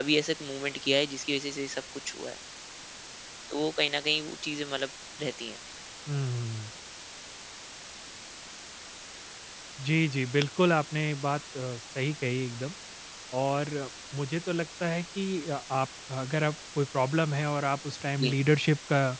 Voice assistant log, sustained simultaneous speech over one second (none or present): none